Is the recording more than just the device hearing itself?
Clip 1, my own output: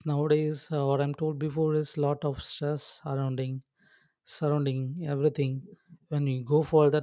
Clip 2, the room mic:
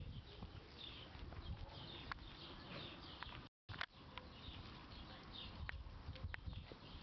No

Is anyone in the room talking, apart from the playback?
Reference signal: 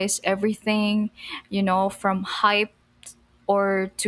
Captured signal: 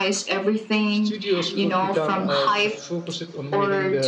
Yes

